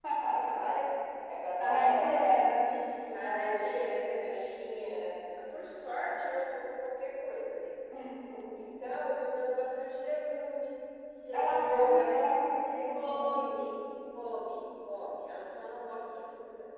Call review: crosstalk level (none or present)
present